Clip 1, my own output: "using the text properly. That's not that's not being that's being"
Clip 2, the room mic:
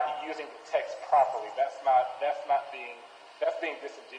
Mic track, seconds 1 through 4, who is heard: echo only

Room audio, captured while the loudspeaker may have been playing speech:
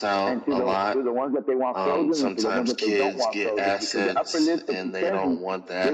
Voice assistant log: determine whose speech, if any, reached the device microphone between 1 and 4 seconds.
echo only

